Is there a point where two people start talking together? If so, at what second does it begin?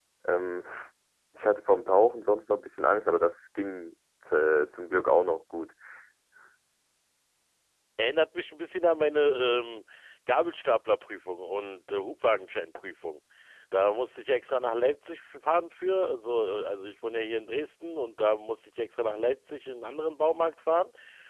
none

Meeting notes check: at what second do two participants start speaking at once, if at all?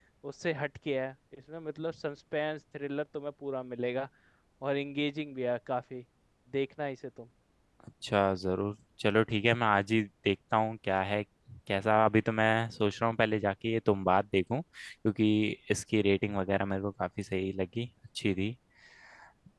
none

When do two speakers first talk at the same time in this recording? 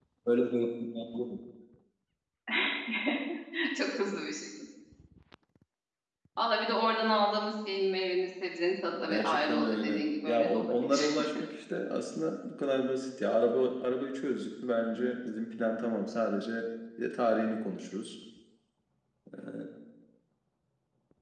9.1 s

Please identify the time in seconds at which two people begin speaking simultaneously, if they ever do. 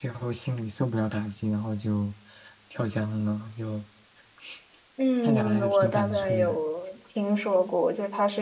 5.2 s

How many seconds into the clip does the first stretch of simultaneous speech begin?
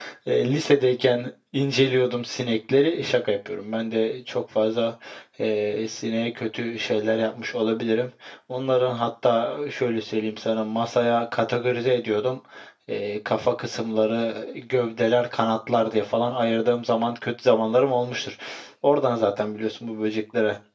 none

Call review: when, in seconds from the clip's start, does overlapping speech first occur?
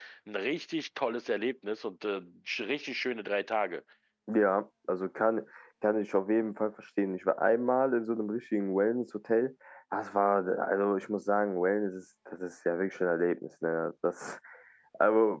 none

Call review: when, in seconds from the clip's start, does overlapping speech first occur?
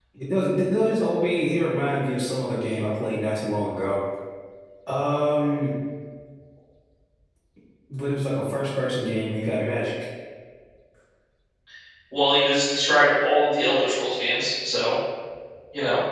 none

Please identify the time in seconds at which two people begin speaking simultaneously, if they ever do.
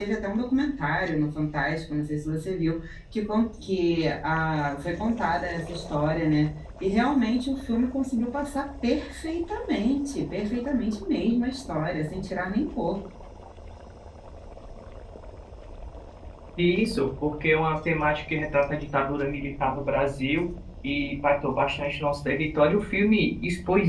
none

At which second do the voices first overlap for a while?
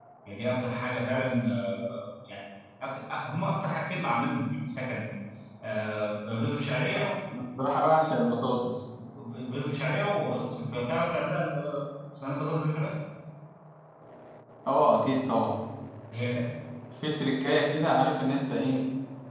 none

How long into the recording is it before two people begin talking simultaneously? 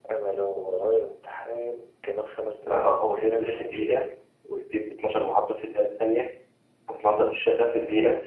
2.7 s

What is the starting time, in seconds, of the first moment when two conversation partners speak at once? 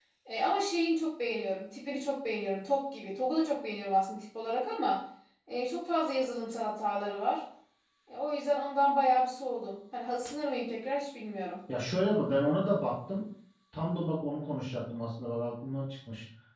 none

